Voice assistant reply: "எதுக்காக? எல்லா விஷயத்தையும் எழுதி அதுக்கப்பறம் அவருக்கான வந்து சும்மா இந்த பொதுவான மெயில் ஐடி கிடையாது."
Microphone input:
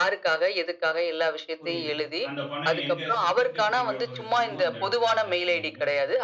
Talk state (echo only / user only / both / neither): both